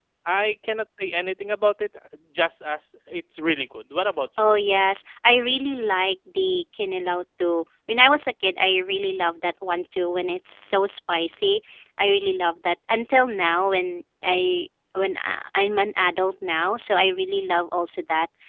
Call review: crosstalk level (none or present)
none